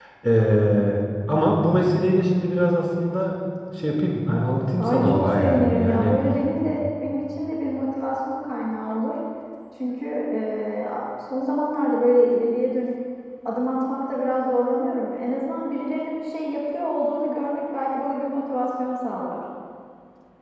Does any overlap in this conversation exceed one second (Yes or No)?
Yes